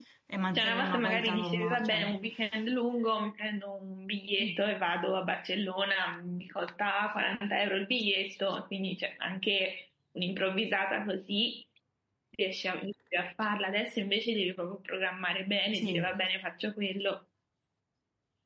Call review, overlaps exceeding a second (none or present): present